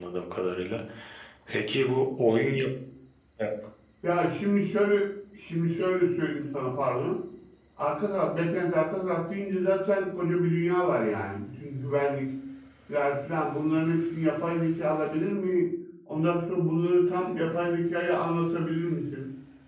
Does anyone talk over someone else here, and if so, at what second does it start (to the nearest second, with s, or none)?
none